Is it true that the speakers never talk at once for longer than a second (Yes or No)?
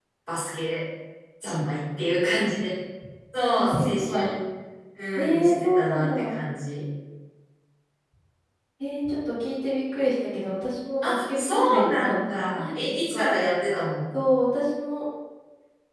No